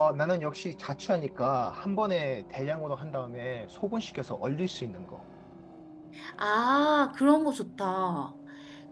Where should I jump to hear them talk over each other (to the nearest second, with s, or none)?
none